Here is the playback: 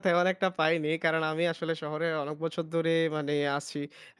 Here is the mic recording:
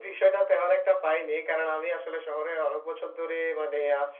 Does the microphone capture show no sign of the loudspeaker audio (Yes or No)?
No